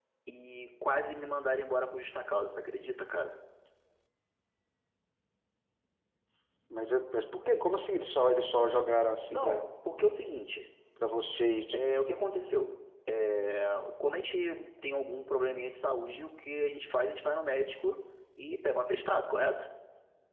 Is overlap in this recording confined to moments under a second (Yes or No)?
Yes